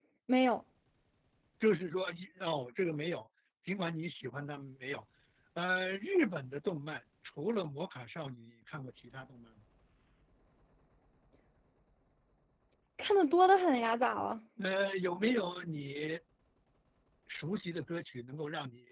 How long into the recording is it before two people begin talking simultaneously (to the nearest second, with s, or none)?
none